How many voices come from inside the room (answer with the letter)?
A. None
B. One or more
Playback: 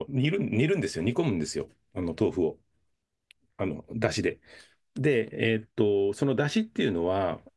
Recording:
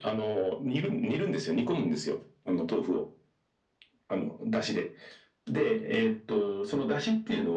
A